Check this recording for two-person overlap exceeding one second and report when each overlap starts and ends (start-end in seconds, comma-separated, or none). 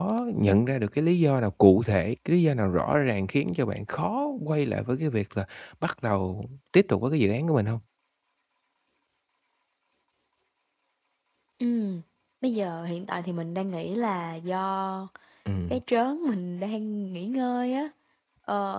none